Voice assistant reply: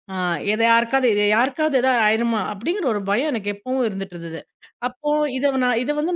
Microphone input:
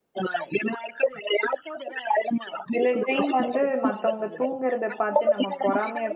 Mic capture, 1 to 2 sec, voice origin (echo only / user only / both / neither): echo only